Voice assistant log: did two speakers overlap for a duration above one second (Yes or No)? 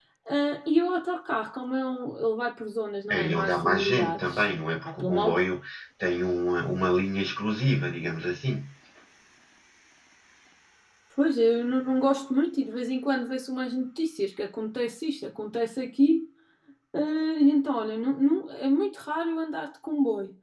Yes